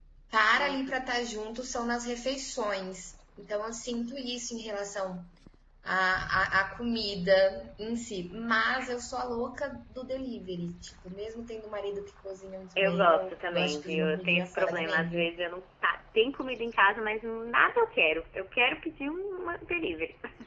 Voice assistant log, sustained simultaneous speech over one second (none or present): present